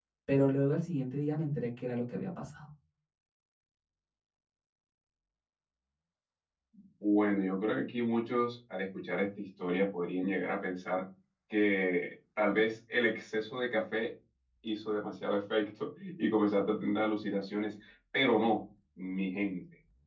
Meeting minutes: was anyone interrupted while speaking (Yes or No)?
No